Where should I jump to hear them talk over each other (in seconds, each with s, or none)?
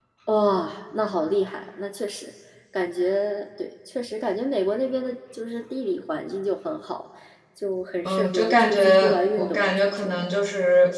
8.1 s